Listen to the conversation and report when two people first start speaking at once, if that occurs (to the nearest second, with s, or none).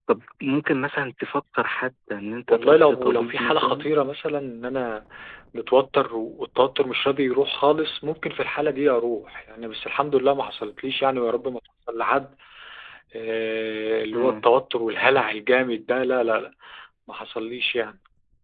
2 s